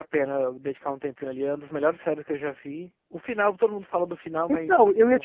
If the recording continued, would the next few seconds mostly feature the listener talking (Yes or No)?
Yes